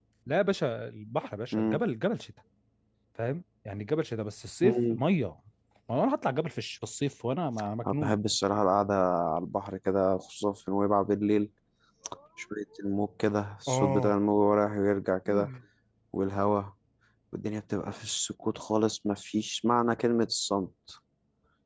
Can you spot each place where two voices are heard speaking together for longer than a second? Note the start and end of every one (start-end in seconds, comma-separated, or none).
none